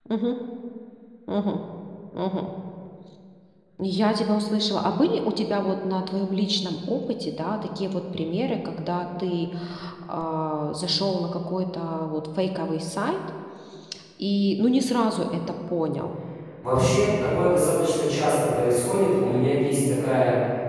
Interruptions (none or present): none